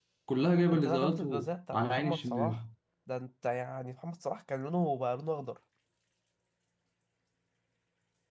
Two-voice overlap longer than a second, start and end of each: 0.7-2.6

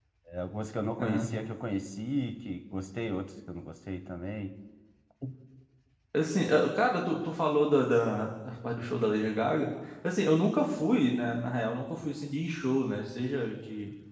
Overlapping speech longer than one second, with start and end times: none

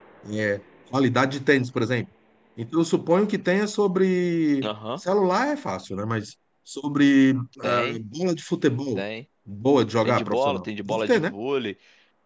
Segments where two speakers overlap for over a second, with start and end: 10.0-11.3

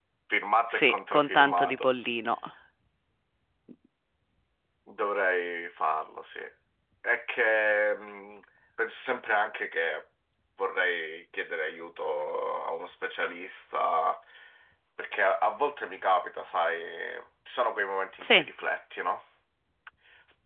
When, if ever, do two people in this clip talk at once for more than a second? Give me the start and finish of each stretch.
0.7-1.9

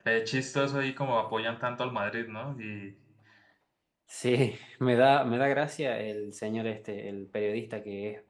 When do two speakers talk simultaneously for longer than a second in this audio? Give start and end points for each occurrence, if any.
none

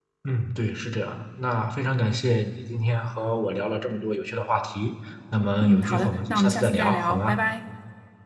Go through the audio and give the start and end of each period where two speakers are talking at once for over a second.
5.6-7.4

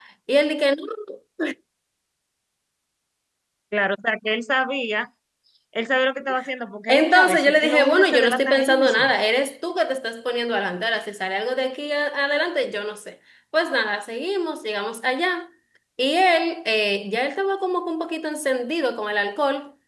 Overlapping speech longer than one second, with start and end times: 6.9-9.1

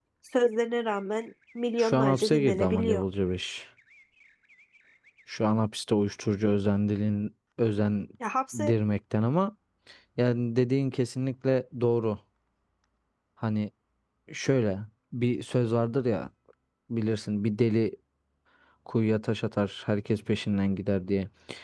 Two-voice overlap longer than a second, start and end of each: 1.8-3.0

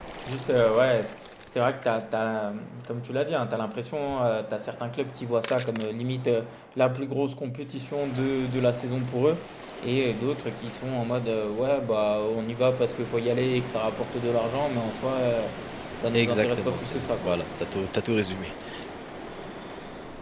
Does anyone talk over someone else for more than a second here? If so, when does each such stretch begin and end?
16.1-17.4

